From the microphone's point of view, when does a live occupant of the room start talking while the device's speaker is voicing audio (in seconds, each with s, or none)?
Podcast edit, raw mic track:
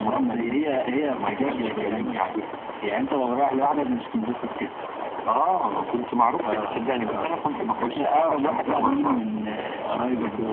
none